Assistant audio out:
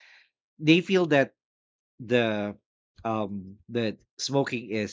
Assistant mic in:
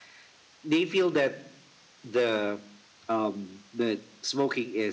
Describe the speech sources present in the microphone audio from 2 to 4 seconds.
echo only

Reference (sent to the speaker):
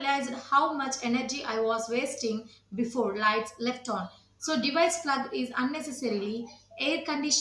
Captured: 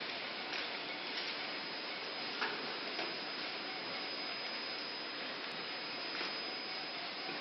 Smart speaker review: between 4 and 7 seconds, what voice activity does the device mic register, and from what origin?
neither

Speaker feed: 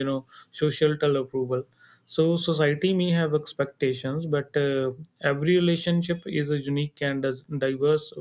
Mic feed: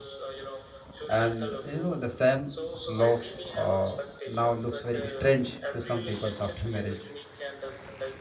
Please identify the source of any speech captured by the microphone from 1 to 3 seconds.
both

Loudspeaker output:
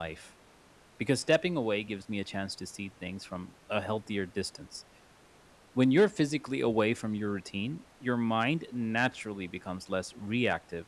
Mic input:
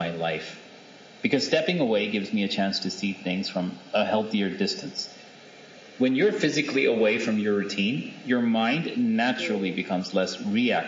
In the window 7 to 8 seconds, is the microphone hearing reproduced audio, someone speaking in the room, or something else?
echo only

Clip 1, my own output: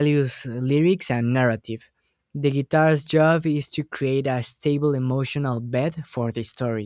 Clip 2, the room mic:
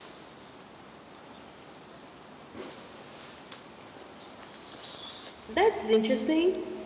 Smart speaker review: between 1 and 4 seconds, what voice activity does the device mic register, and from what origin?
neither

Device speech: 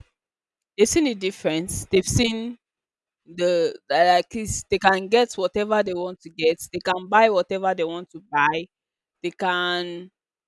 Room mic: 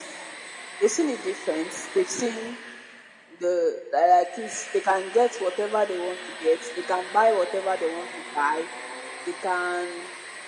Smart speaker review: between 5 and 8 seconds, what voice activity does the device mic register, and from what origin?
echo only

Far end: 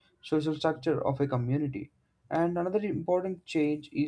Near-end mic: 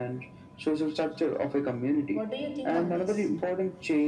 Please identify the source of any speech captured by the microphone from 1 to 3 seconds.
both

